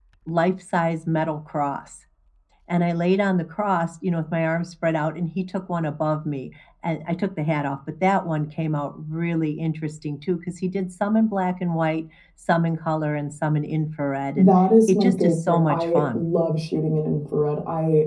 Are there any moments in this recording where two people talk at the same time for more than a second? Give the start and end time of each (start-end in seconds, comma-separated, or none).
14.9-16.2